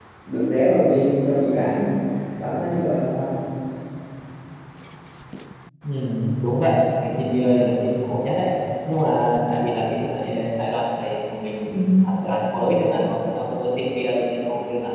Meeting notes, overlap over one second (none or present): none